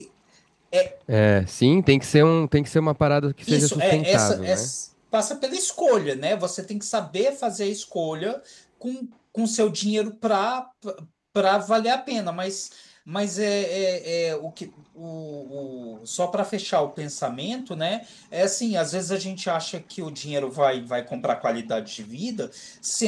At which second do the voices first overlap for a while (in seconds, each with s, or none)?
3.5 s